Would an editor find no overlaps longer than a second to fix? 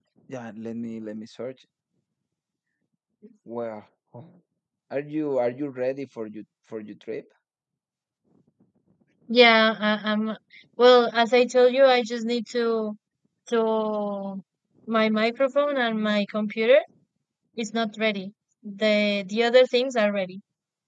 Yes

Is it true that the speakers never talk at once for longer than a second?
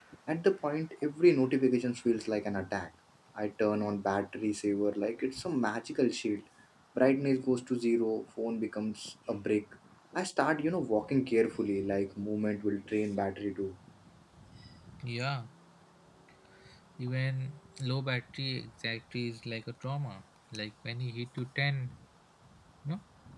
Yes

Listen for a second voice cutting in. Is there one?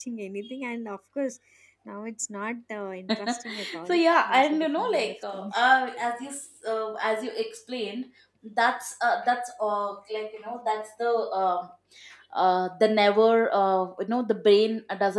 Yes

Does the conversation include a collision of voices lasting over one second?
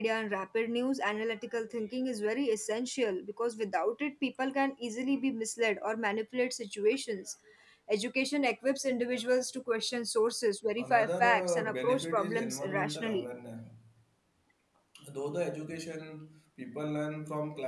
Yes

